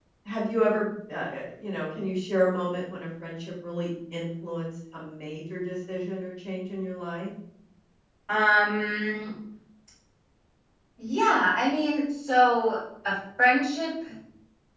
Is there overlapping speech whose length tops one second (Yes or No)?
No